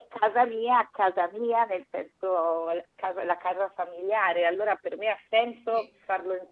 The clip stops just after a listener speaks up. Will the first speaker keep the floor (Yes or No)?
Yes